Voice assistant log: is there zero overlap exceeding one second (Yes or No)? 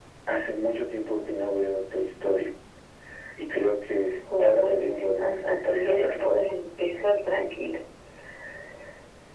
No